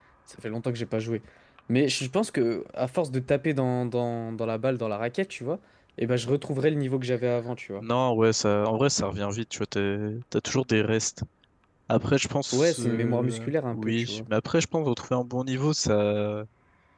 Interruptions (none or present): present